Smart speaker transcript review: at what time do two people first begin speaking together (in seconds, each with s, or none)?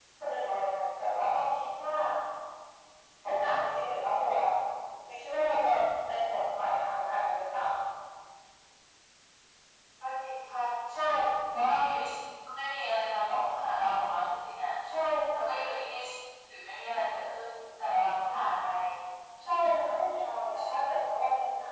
none